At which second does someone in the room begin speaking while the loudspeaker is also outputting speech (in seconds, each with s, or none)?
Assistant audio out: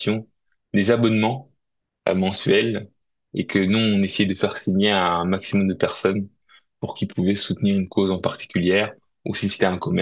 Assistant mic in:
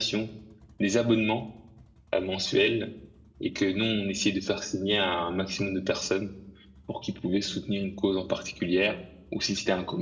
none